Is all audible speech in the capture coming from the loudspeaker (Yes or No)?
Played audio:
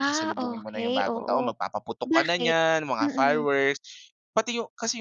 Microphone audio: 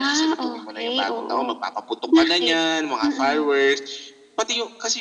Yes